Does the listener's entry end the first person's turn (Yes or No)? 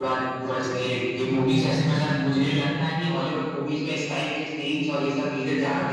Yes